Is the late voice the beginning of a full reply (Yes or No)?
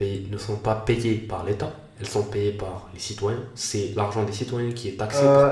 Yes